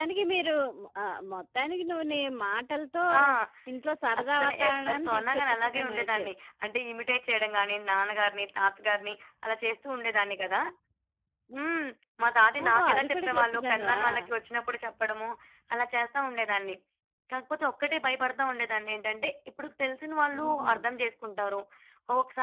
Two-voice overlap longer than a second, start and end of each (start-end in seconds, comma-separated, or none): 4.2-6.2, 12.6-14.0